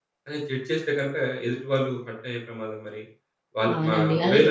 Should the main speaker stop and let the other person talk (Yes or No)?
Yes